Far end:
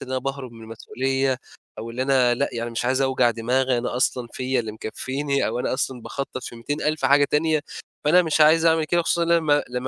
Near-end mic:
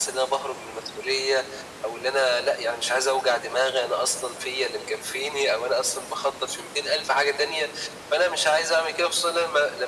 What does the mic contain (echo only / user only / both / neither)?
echo only